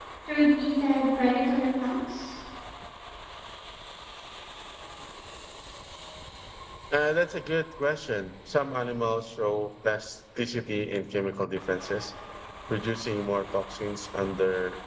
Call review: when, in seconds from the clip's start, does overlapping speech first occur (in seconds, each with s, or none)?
none